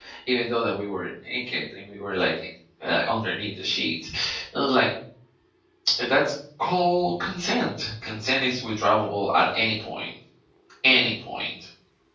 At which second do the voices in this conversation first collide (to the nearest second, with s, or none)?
none